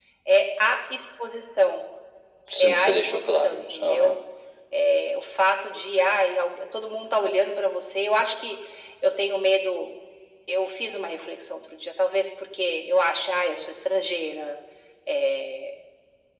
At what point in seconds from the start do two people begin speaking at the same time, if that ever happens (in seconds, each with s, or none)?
2.6 s